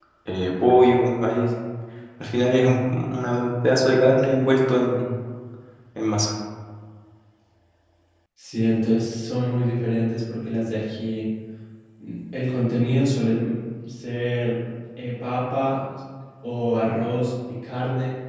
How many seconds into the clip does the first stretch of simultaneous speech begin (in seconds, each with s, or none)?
none